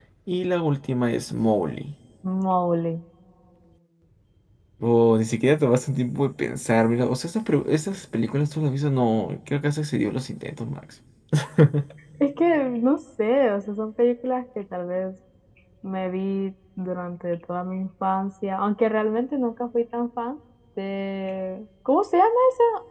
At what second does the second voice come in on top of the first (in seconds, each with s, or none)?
none